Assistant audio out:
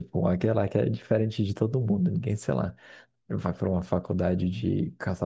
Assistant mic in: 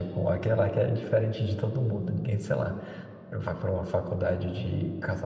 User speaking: No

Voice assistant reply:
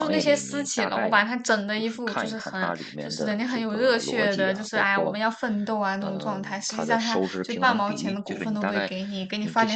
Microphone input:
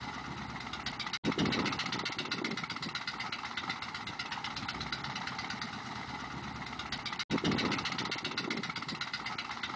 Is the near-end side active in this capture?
No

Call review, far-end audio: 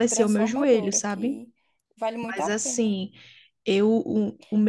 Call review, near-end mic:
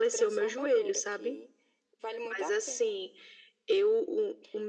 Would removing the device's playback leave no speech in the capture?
Yes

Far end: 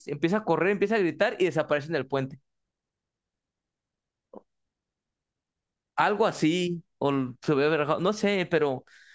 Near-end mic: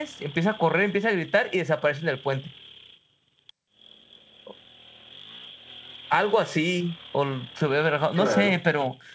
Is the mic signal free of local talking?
No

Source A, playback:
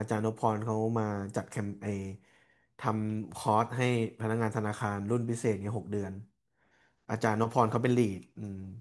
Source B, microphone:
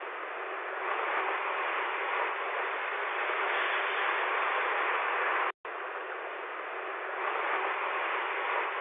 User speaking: No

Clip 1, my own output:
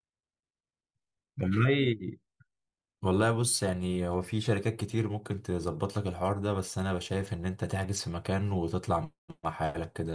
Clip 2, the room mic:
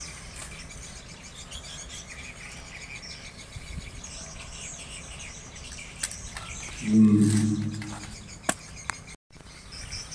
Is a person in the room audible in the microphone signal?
Yes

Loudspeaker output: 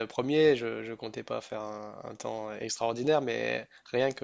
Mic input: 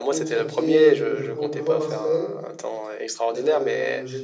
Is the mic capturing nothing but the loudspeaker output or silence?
No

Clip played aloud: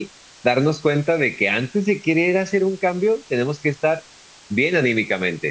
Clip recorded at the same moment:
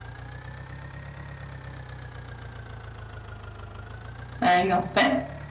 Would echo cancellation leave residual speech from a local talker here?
Yes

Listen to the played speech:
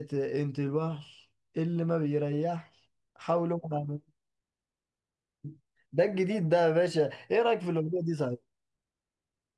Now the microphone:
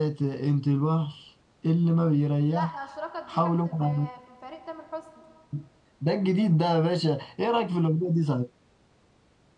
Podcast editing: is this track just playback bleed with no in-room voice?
No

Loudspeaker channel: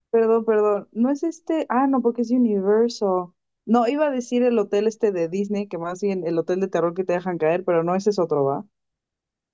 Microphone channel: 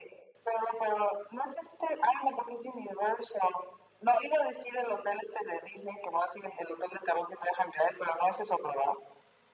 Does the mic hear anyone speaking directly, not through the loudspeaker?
No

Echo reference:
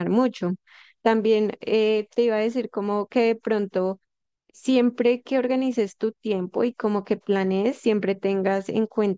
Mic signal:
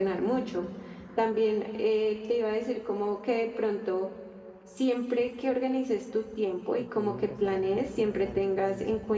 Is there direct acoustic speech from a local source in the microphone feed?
Yes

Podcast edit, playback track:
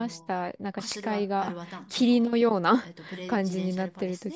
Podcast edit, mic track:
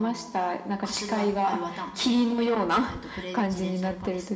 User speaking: No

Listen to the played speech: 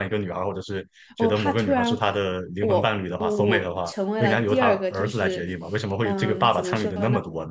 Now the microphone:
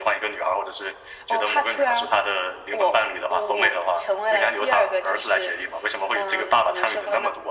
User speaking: No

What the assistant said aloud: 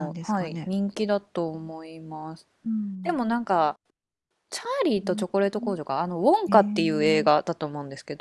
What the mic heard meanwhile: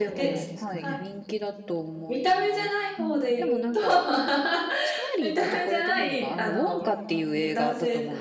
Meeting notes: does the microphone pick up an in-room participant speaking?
Yes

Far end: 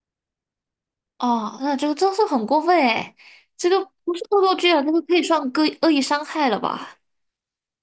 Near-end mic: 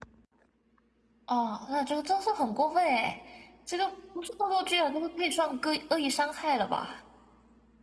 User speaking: No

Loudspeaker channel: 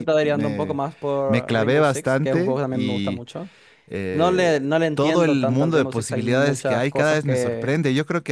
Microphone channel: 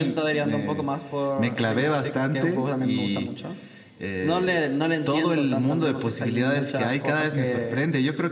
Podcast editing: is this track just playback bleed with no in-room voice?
Yes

